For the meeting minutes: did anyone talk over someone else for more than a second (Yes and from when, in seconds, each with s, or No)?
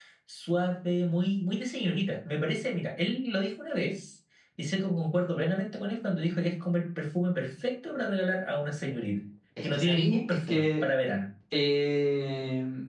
Yes, from 9.6 s